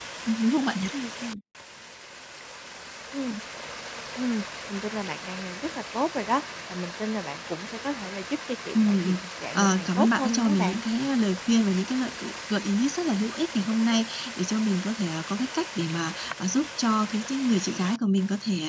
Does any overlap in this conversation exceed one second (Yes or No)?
Yes